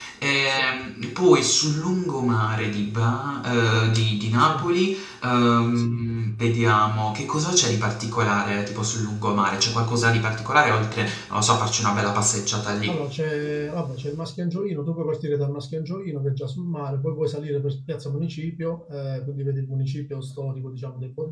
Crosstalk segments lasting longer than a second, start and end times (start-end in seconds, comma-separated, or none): none